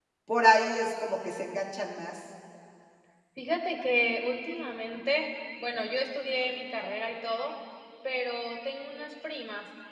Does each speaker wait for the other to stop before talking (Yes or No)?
Yes